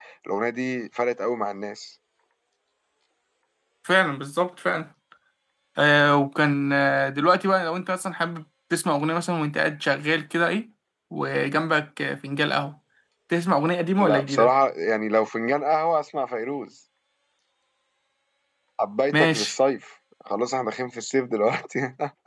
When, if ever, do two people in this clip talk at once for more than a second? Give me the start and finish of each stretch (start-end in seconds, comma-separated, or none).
none